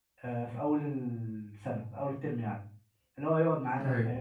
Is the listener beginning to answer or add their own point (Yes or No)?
No